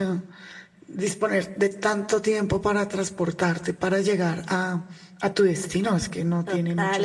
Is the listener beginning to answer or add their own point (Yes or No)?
Yes